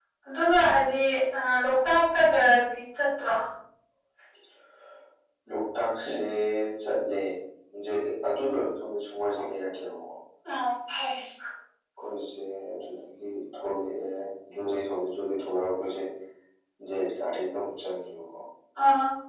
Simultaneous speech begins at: none

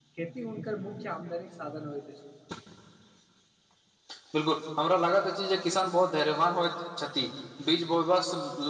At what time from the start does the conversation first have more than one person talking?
none

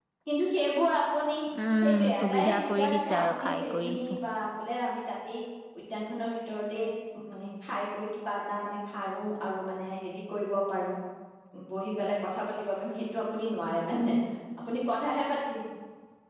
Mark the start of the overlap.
1.8 s

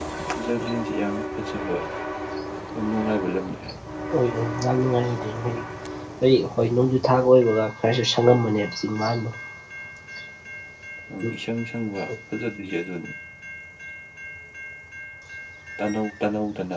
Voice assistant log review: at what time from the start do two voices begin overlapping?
none

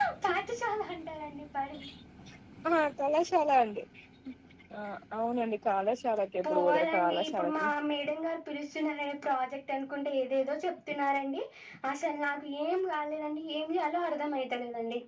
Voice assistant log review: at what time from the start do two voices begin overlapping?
6.4 s

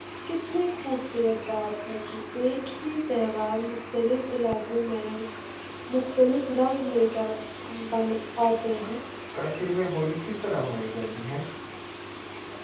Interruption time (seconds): none

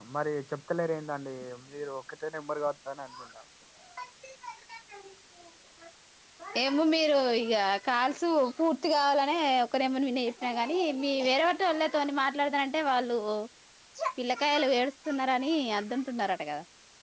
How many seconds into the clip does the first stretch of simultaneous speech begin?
none

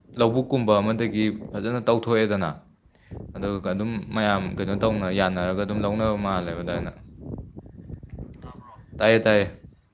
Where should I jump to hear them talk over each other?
none

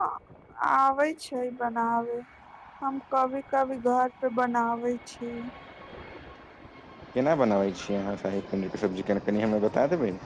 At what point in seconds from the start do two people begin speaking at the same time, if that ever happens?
none

